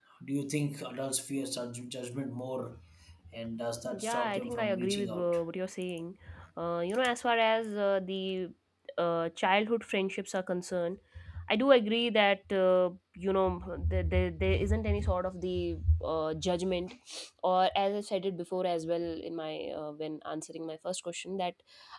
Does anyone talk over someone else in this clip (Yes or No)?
Yes